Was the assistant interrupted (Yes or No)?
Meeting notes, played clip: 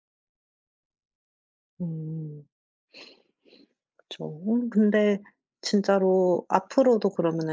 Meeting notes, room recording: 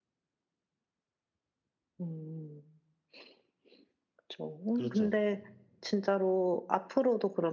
Yes